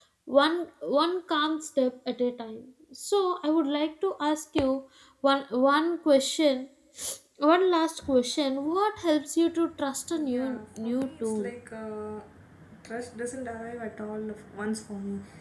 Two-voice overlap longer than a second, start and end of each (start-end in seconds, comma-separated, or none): 10.3-11.5